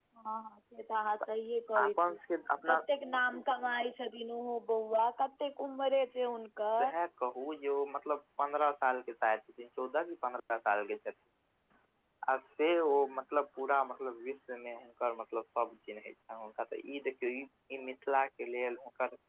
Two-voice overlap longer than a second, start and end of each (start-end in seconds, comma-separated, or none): none